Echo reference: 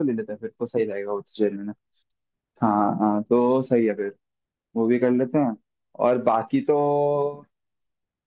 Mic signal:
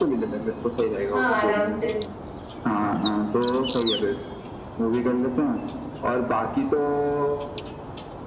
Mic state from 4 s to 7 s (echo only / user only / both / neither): echo only